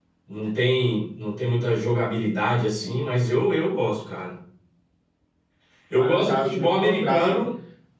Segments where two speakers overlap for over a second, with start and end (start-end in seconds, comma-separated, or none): 5.9-7.4